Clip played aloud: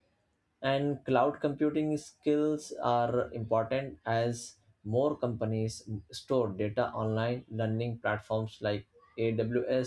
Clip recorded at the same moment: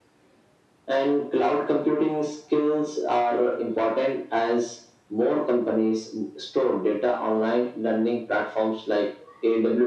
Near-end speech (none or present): none